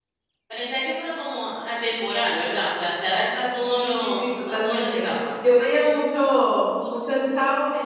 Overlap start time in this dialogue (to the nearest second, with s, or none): 4 s